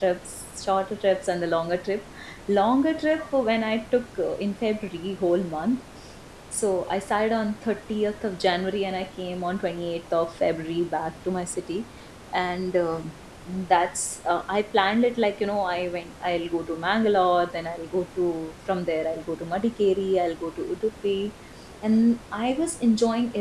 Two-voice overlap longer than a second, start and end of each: none

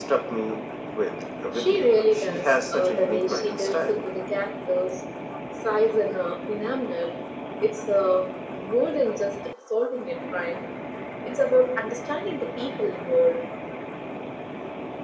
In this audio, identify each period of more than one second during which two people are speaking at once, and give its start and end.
1.5-4.0

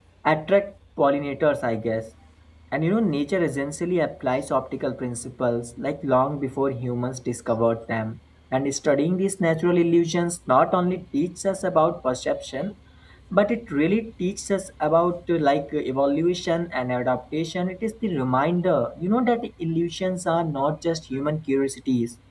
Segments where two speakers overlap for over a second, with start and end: none

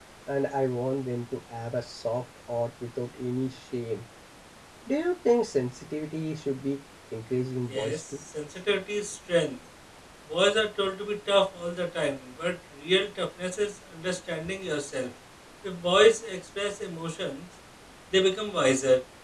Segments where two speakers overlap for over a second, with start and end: none

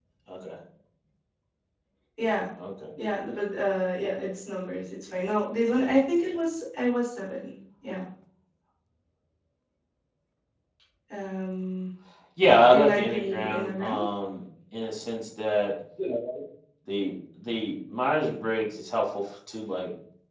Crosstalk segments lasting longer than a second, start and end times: 12.7-14.0

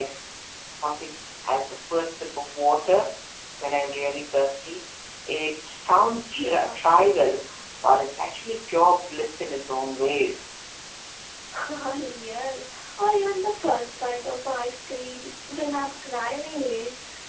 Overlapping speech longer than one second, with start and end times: none

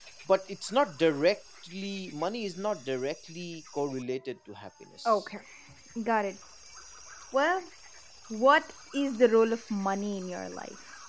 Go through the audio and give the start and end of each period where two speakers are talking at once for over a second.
none

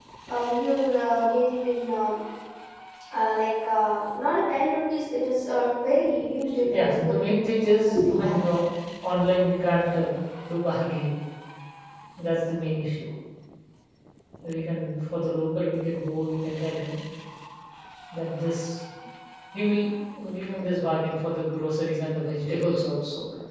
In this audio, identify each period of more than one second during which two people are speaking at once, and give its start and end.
6.8-8.4

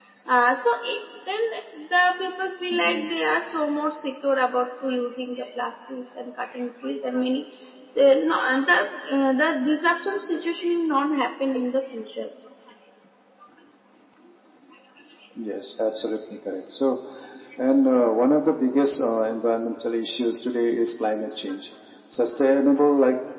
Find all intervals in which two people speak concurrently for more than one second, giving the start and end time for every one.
none

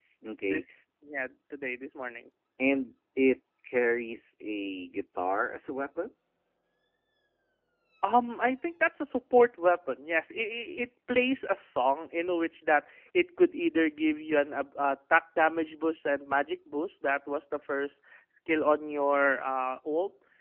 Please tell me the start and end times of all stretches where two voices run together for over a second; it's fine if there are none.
none

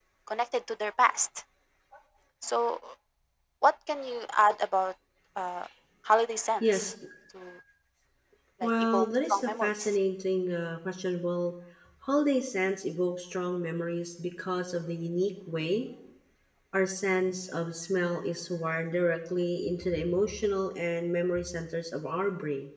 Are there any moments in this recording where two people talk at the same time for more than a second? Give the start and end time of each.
8.6-10.0

